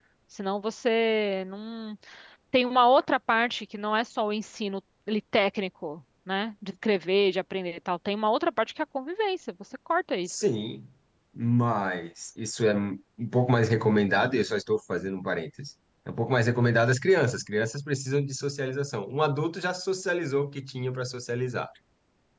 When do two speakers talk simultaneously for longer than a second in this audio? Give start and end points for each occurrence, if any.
none

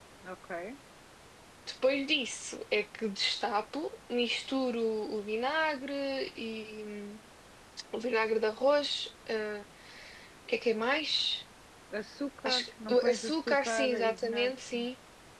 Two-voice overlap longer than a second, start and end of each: 12.4-14.9

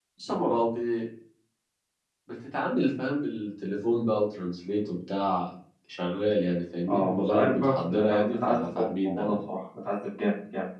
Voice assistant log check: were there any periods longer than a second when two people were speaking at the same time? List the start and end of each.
6.9-9.2

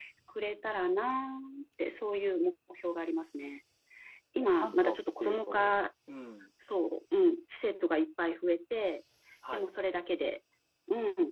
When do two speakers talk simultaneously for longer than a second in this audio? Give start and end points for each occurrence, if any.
4.4-5.7

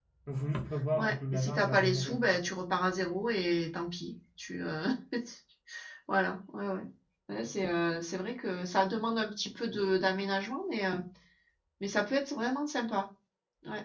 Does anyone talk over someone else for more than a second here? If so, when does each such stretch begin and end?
1.0-2.4

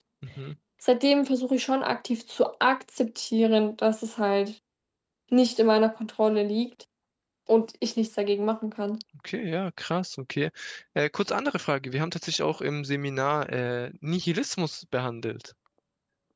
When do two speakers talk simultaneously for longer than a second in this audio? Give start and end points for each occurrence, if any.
none

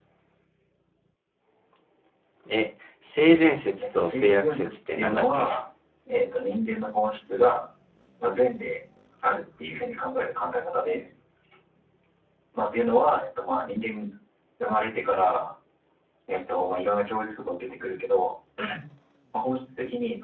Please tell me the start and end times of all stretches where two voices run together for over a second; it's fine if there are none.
3.8-5.5

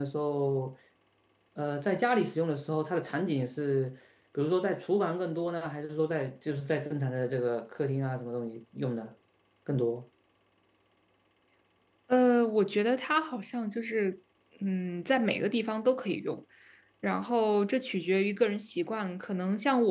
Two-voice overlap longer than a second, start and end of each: none

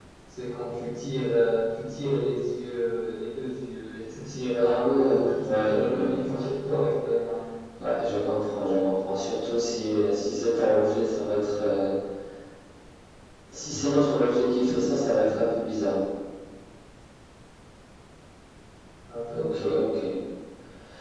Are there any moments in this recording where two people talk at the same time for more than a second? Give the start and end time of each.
4.6-6.5

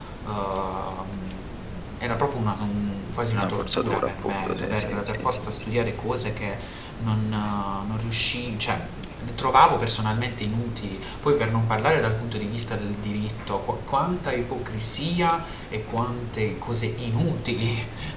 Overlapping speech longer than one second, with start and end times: 3.3-5.7

